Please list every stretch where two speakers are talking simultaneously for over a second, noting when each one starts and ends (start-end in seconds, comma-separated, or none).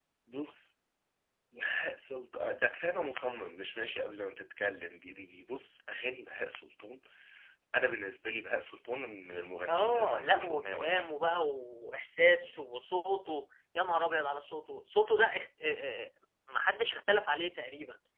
9.7-11.0